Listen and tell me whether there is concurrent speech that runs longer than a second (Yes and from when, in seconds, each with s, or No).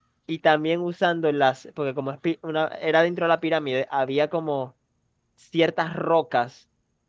No